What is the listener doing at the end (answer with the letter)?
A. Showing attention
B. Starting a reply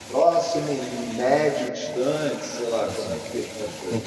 B